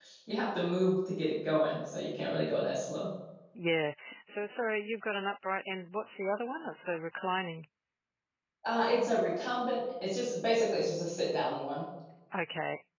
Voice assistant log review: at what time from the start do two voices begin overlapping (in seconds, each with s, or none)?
none